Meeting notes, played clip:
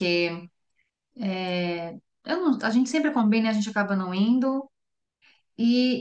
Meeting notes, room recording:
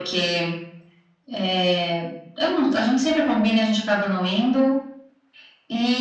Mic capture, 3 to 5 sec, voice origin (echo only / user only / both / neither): echo only